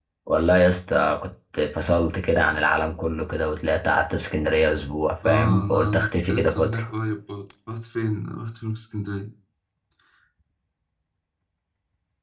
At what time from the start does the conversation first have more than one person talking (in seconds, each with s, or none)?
5.2 s